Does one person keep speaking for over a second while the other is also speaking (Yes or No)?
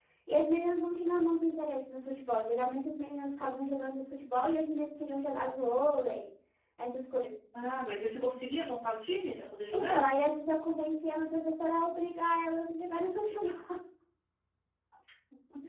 No